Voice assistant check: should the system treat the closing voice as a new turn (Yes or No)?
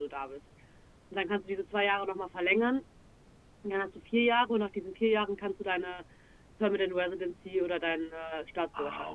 Yes